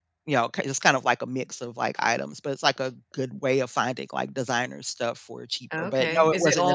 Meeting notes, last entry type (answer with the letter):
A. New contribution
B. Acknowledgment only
A